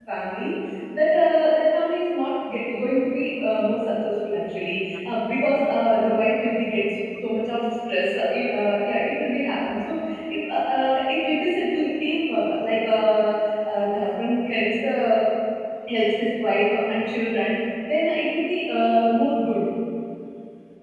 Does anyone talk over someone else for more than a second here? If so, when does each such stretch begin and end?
none

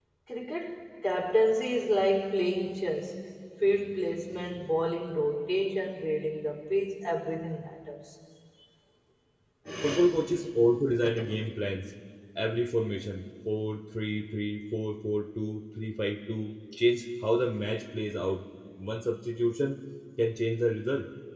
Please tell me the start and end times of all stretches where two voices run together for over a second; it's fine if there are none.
none

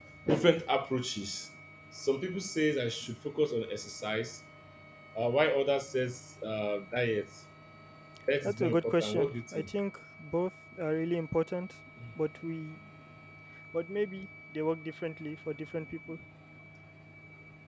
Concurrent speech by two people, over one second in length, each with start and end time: 8.4-9.7

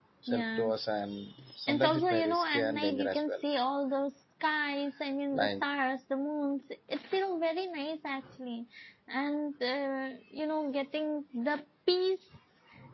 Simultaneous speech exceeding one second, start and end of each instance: 1.7-3.3

